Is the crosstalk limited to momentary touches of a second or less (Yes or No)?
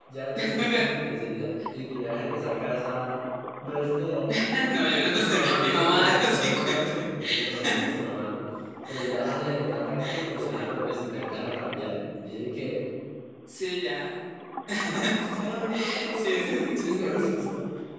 No